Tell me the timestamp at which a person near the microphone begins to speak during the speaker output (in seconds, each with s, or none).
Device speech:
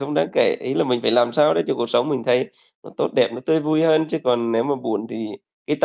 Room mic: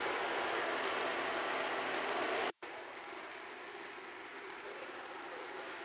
none